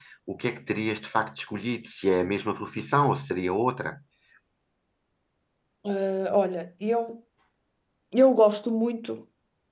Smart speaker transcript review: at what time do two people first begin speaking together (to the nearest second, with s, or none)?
none